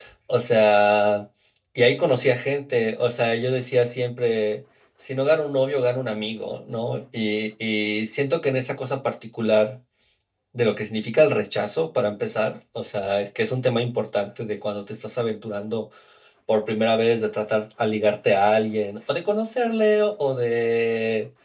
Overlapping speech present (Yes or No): No